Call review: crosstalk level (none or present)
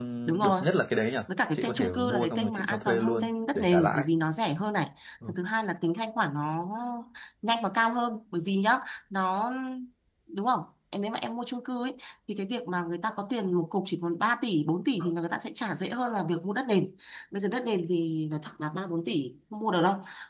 present